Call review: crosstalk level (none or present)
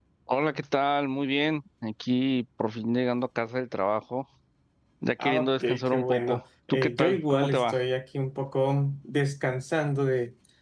present